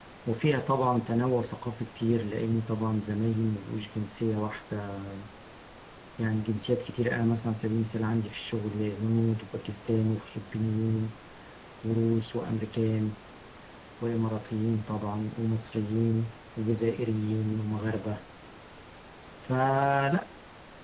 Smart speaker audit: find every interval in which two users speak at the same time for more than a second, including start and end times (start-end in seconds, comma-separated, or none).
none